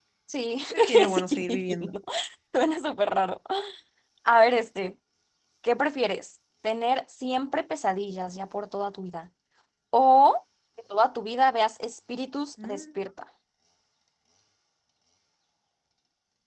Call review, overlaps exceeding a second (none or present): present